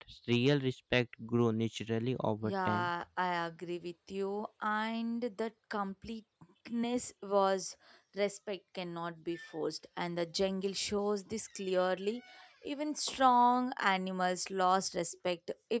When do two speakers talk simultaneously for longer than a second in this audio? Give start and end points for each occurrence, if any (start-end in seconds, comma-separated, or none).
none